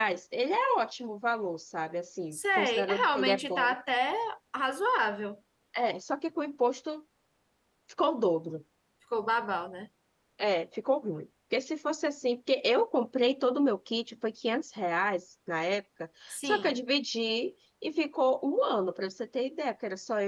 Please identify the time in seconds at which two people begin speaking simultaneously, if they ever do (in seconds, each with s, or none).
2.3 s